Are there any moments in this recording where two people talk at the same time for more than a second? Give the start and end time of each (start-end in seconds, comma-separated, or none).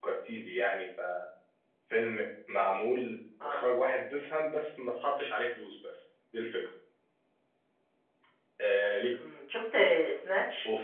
none